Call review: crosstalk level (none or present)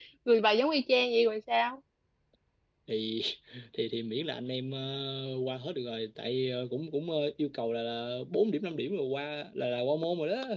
none